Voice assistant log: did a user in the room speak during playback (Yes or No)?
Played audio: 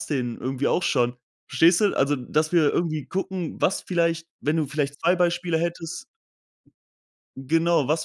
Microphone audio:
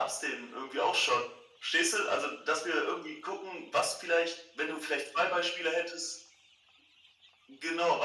No